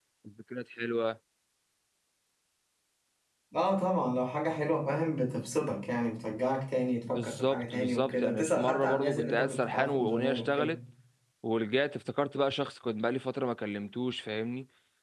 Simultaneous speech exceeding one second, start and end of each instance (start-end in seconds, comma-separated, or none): 7.1-10.7